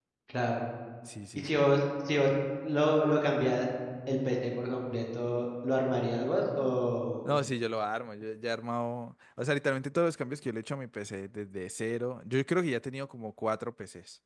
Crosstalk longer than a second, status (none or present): none